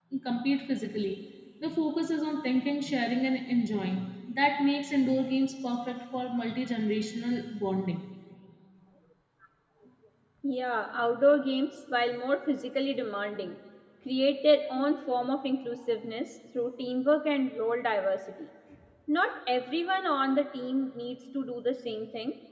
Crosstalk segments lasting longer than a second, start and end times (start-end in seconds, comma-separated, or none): none